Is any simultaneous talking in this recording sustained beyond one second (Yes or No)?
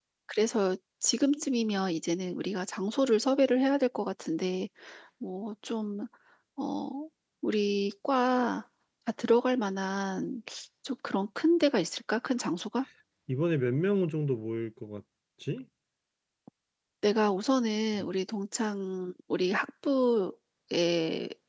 No